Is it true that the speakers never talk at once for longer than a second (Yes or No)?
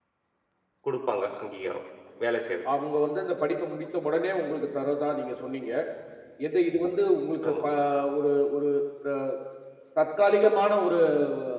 Yes